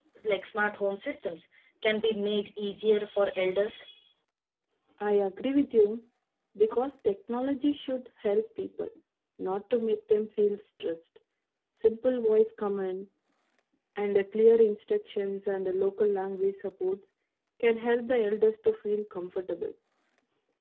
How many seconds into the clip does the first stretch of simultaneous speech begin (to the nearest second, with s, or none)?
none